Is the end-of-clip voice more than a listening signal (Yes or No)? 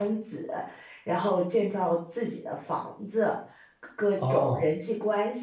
No